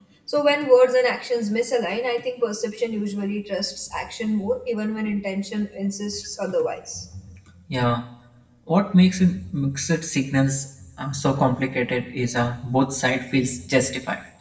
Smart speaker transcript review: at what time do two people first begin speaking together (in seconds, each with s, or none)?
none